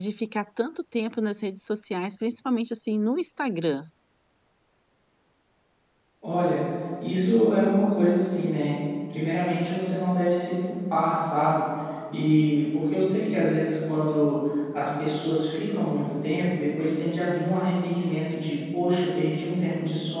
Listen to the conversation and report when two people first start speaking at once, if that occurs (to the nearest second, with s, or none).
none